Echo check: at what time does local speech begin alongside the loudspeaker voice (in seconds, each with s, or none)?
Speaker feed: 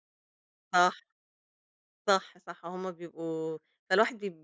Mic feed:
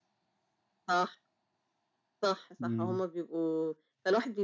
2.6 s